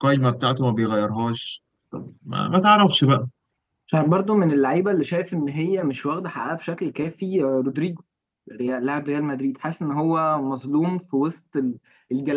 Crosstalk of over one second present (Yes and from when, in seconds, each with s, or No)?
No